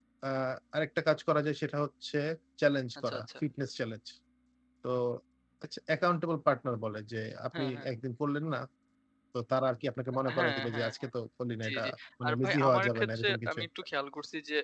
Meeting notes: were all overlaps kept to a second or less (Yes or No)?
No